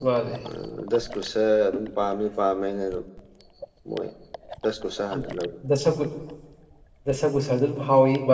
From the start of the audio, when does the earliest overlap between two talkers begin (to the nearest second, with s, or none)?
none